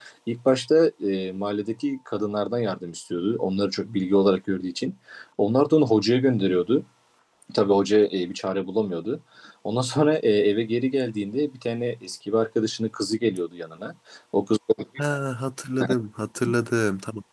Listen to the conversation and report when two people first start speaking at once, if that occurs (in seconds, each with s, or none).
none